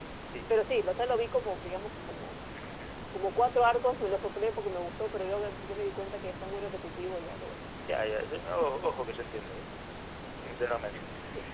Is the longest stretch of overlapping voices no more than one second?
Yes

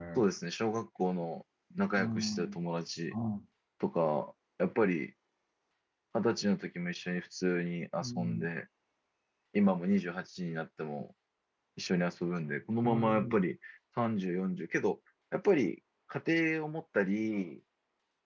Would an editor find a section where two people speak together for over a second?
No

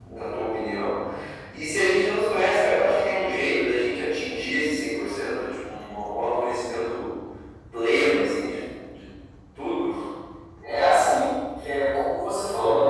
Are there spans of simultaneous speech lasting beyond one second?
No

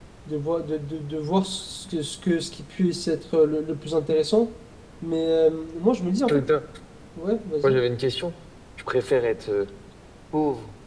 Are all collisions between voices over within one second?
Yes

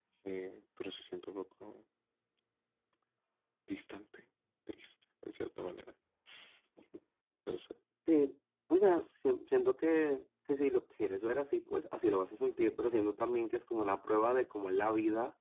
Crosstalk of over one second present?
No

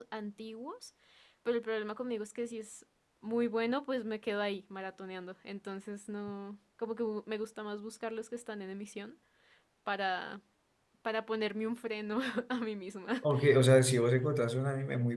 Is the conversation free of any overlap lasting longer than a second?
Yes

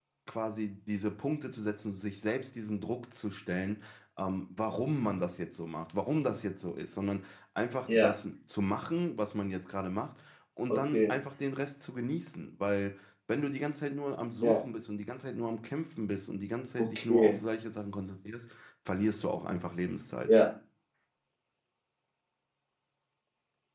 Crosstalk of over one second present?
No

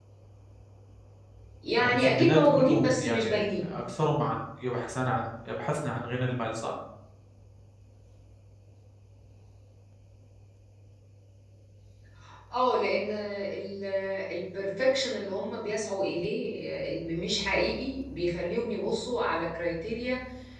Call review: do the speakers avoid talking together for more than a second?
No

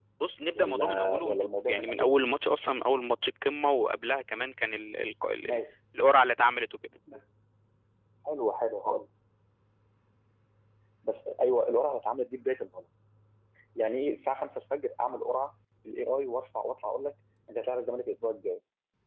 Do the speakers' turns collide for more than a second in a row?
Yes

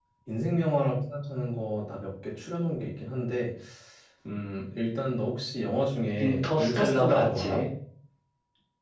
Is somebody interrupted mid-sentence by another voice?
Yes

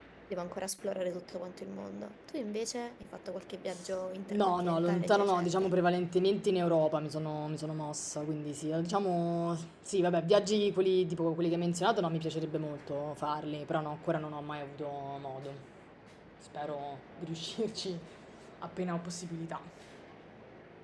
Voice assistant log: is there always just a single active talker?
No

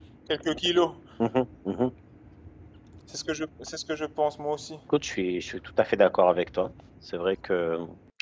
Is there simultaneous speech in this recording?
No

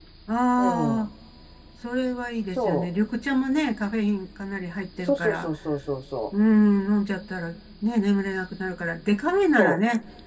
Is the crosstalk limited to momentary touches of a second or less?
Yes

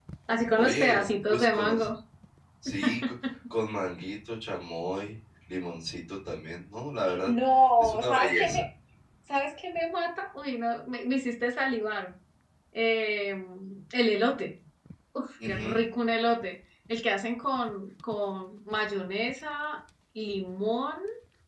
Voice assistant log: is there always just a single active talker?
No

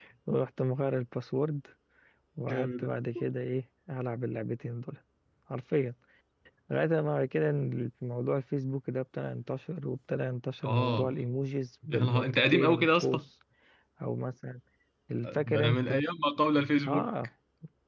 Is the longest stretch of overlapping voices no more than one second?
No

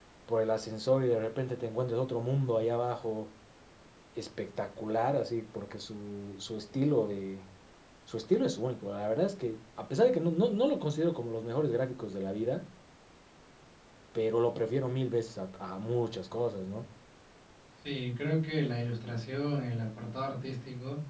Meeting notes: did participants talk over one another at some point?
No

